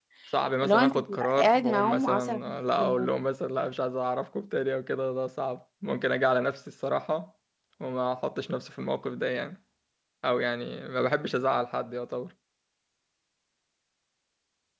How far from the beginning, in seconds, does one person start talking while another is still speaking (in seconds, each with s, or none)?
0.6 s